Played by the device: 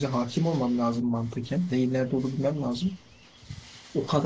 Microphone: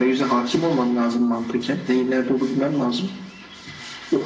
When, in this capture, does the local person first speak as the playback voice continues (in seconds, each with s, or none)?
none